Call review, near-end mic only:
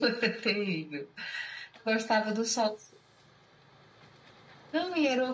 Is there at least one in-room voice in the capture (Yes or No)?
No